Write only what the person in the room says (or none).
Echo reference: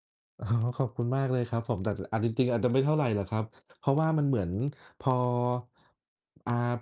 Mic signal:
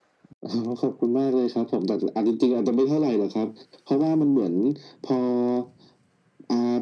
none